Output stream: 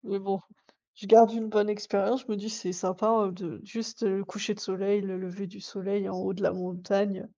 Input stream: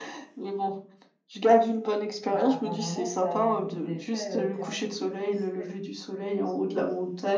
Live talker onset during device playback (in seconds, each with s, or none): 2.3 s